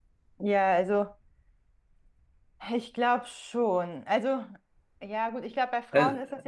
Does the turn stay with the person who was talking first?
Yes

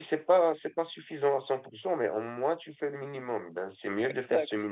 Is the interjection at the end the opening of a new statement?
No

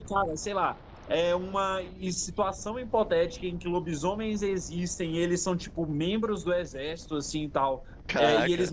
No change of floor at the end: Yes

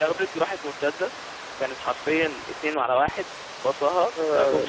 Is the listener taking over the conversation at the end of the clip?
Yes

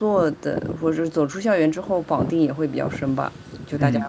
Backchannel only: No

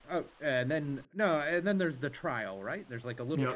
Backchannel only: No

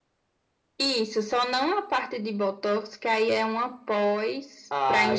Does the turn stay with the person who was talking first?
No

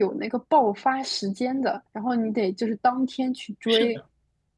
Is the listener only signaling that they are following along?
No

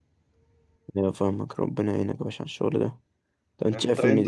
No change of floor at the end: Yes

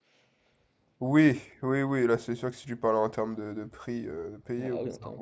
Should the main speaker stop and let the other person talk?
Yes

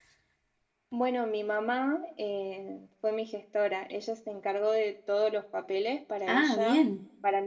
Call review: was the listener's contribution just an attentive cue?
Yes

